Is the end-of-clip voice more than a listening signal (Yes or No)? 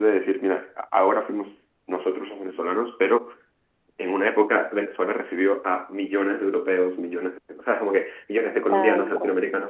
No